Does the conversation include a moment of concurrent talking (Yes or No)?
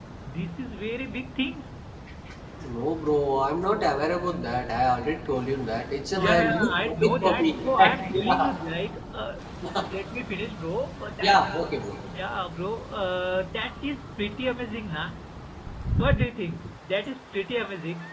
Yes